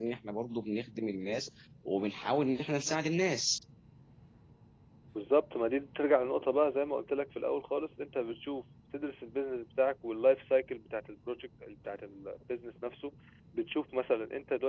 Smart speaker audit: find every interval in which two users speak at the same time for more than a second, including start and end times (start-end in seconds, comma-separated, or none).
none